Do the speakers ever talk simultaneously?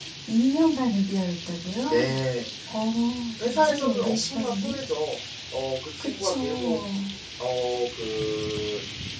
Yes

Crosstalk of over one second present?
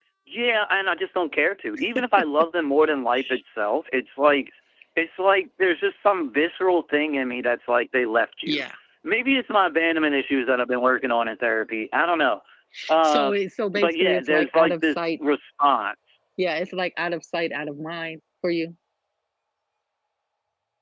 Yes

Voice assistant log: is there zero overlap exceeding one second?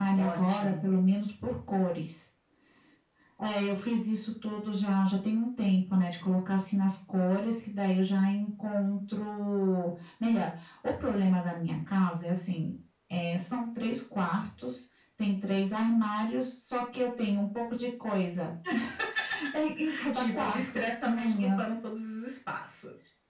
No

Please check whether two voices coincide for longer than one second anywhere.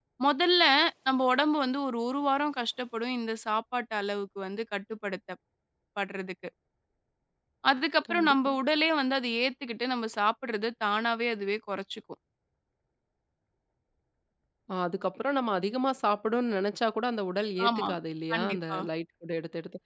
No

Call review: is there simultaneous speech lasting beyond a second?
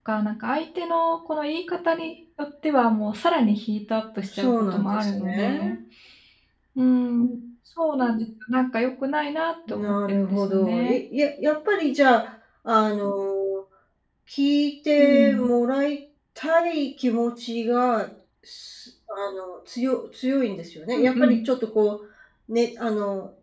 Yes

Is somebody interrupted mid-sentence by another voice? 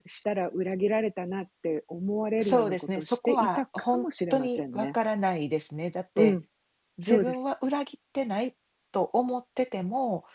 Yes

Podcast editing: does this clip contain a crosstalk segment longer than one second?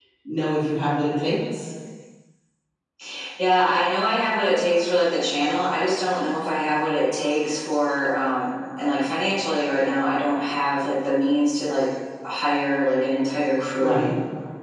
No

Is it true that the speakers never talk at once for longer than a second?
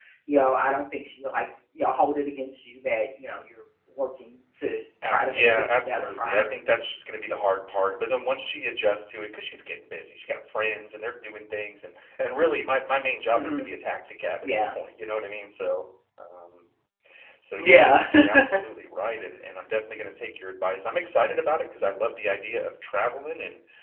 No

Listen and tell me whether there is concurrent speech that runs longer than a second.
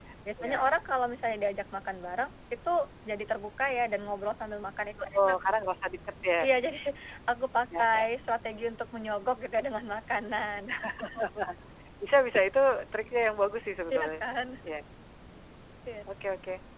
No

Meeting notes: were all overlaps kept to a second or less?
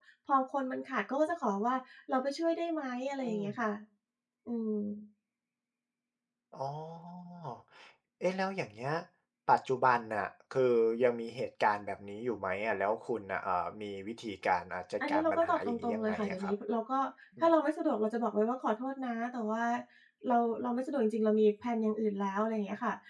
No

